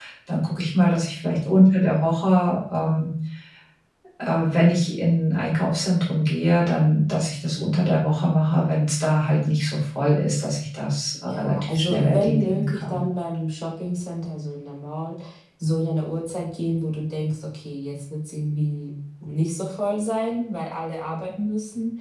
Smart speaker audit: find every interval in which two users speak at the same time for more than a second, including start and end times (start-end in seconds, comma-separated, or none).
11.3-13.0